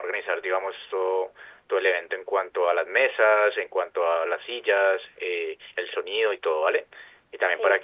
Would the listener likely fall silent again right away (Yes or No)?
Yes